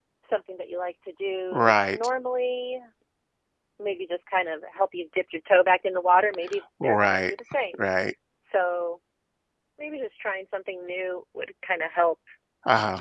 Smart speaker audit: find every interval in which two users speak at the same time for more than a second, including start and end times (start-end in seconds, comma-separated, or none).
none